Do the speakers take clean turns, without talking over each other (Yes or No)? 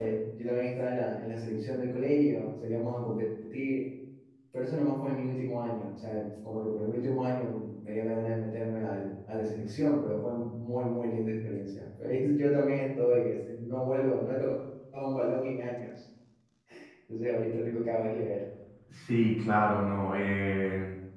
Yes